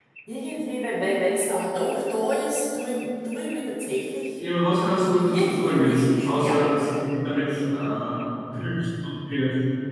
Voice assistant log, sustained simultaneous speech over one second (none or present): present